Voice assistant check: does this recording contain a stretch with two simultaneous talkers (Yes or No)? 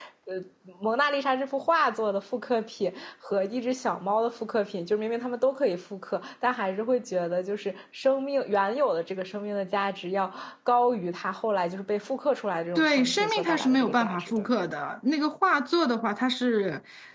Yes